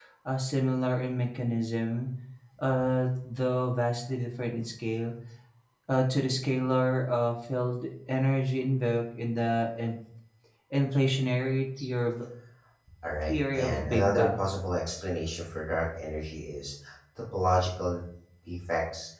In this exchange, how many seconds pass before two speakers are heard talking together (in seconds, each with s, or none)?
13.2 s